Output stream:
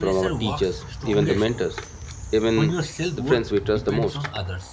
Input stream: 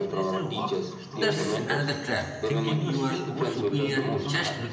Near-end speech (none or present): present